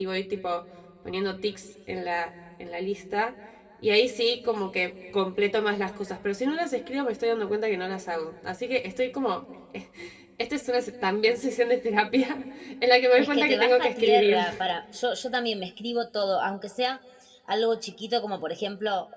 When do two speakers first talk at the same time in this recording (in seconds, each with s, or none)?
13.2 s